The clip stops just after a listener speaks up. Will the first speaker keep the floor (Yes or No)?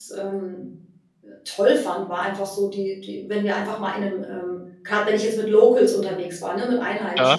Yes